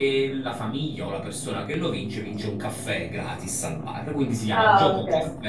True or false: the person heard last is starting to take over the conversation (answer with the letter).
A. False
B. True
A